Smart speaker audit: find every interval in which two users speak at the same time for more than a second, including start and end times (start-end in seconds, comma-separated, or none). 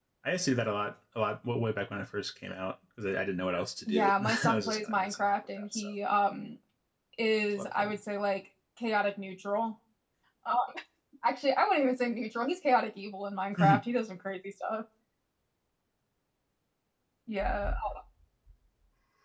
3.9-5.9